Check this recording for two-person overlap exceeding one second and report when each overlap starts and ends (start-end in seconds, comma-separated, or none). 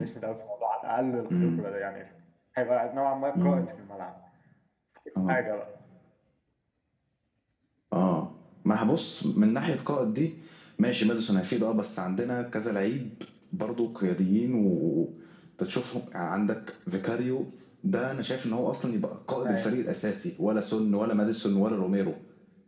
none